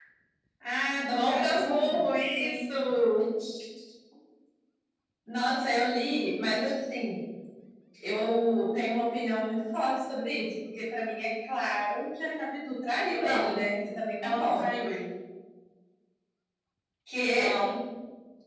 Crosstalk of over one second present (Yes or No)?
Yes